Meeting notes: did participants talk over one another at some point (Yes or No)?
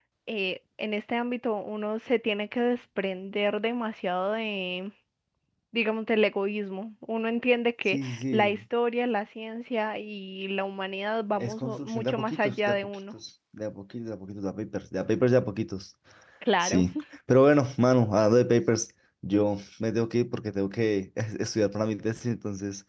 Yes